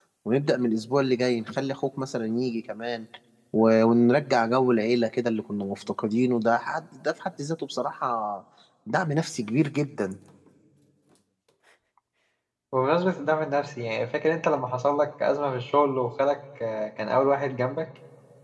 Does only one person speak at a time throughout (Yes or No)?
Yes